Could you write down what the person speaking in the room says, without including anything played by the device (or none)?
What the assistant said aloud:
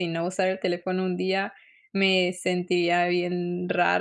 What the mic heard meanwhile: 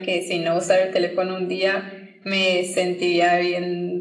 none